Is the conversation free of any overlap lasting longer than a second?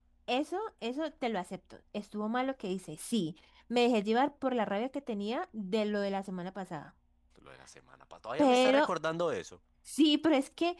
Yes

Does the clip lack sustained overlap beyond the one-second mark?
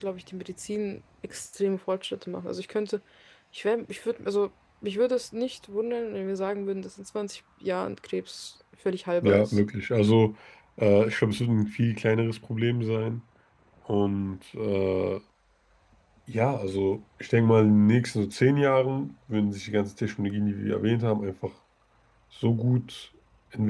Yes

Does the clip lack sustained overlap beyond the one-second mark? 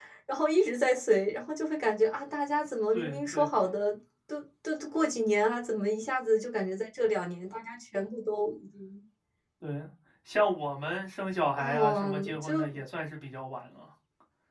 No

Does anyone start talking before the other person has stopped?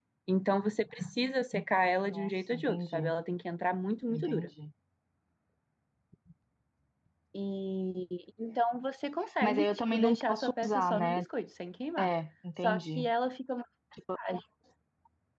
Yes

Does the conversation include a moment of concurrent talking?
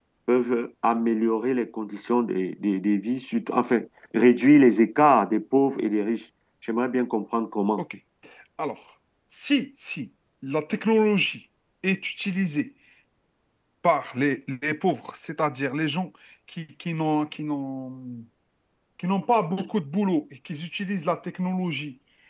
No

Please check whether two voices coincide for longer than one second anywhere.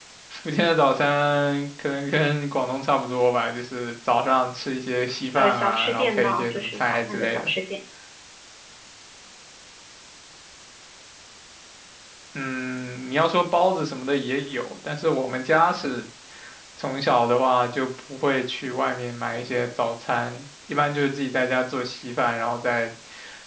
Yes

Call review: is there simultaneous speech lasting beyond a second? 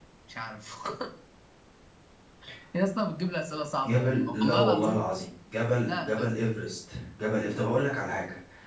Yes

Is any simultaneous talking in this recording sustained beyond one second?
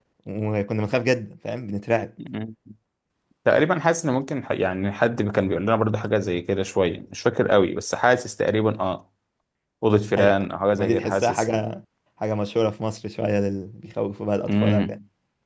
Yes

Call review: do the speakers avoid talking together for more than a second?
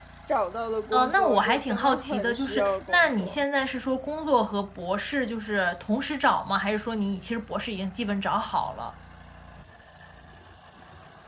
No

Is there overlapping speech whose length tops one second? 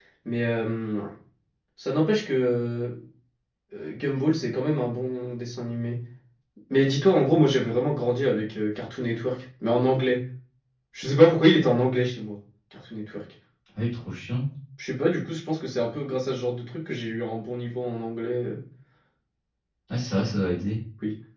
No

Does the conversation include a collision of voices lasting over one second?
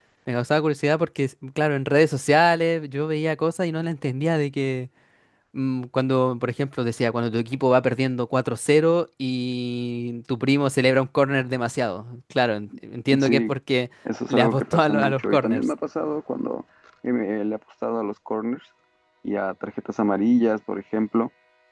Yes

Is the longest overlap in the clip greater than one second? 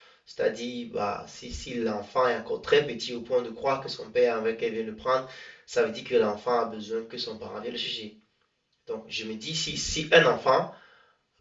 No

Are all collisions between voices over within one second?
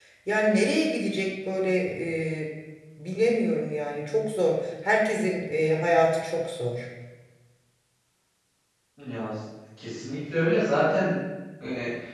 Yes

